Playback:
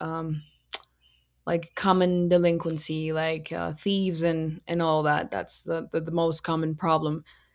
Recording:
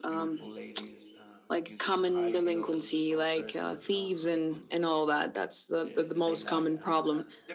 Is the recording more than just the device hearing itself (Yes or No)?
Yes